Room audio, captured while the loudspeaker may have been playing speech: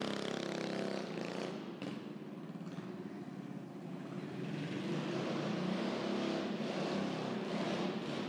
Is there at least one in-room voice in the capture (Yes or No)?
No